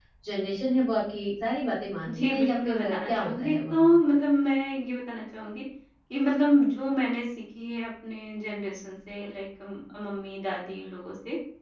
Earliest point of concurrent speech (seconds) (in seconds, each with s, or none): 2.1 s